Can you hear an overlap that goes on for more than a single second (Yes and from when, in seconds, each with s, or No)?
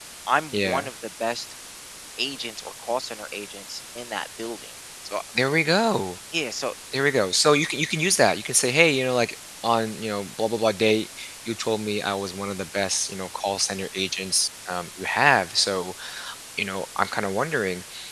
No